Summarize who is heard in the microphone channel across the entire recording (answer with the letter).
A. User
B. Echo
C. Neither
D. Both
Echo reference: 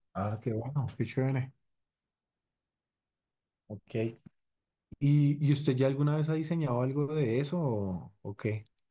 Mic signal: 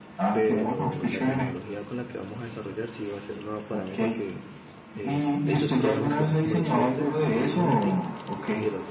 D